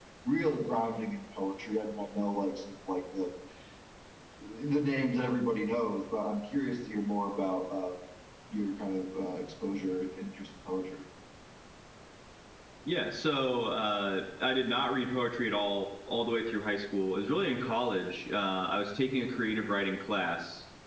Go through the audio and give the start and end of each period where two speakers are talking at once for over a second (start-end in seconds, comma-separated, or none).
none